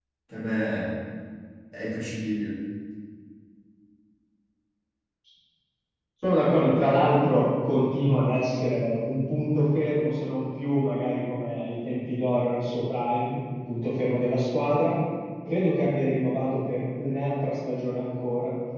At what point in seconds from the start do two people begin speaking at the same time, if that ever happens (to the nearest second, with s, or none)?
none